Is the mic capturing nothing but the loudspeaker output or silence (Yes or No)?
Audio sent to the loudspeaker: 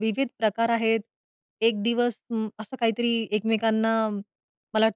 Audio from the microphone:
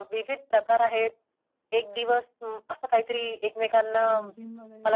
No